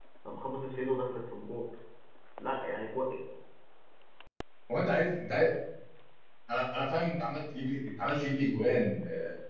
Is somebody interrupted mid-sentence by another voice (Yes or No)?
No